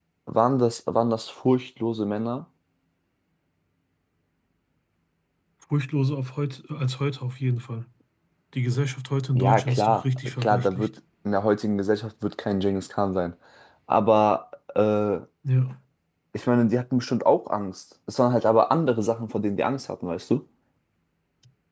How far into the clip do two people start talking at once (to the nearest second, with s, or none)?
9 s